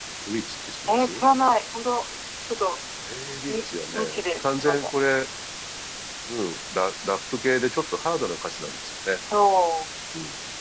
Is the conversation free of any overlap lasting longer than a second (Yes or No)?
No